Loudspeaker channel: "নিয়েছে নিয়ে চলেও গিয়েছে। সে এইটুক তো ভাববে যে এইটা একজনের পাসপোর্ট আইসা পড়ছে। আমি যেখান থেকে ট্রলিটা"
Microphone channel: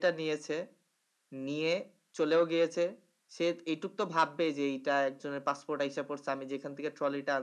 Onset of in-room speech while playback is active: none

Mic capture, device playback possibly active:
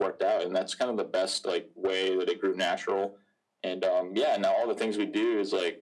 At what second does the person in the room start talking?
none

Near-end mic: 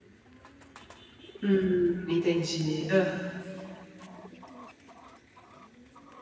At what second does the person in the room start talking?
1.4 s

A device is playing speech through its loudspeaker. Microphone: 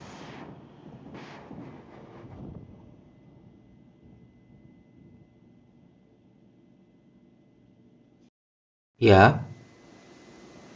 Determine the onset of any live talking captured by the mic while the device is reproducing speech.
9.0 s

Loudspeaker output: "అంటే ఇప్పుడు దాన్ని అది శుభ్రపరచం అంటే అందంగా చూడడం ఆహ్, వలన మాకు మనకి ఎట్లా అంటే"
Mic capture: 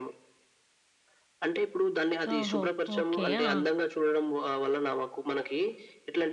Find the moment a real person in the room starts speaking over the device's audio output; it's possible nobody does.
2.3 s

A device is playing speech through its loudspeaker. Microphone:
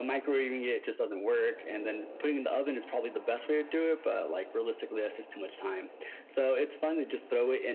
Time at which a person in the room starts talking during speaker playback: none

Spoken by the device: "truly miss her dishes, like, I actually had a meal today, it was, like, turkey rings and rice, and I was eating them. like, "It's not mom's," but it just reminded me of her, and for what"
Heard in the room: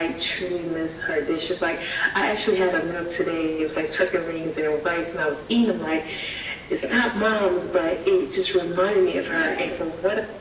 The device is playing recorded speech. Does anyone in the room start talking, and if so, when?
9.2 s

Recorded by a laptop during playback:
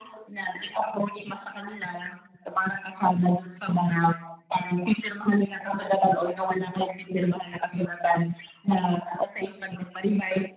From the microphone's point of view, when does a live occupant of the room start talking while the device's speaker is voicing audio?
none

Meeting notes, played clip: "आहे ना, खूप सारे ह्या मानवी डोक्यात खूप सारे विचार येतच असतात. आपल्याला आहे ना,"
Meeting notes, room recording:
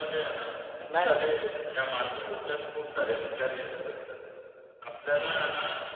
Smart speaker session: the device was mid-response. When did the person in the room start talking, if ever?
0.9 s

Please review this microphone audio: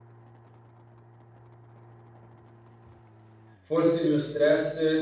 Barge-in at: 3.6 s

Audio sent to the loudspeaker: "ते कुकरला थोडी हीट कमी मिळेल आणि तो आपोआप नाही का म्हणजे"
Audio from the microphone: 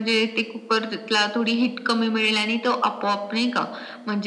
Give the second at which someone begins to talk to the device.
none

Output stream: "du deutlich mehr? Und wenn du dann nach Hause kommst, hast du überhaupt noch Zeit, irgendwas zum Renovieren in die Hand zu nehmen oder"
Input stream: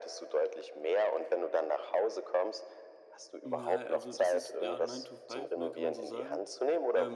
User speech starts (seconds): 3.4 s

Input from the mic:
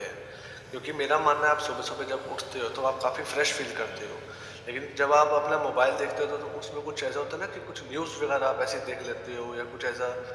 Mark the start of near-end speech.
none

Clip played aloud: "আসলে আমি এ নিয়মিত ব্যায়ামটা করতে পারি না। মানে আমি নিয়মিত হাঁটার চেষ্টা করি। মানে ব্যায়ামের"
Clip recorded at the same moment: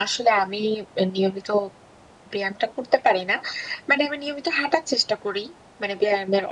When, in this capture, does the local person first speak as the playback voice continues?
none

